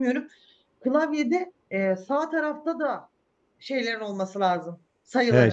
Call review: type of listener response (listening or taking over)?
taking over